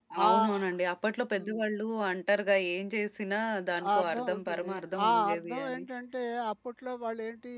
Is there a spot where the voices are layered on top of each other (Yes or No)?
Yes